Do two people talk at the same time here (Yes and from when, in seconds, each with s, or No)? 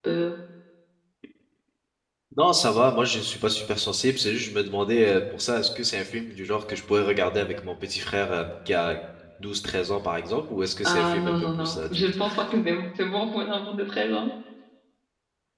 Yes, from 10.8 s